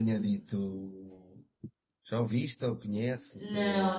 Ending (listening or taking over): taking over